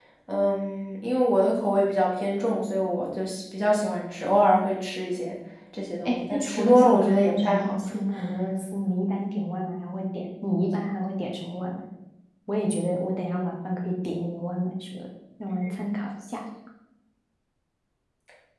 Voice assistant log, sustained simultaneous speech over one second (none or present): present